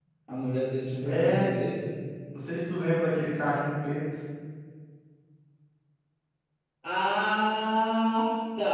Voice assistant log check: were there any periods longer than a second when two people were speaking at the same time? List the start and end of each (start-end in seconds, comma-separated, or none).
none